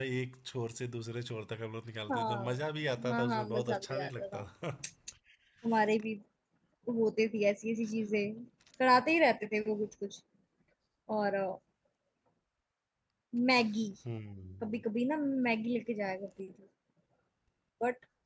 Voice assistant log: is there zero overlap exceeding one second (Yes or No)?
No